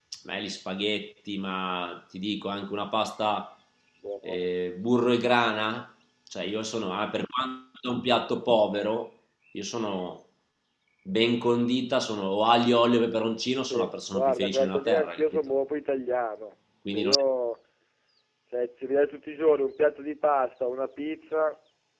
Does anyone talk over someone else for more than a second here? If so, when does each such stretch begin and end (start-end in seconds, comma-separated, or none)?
13.7-15.2